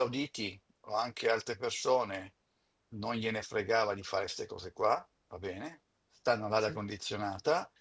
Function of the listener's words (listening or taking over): listening